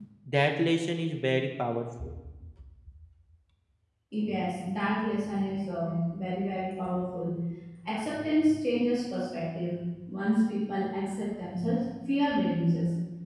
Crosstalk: none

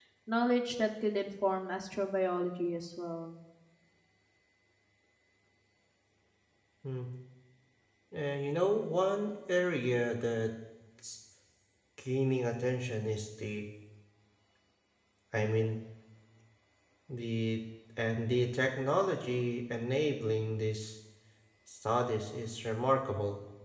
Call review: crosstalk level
none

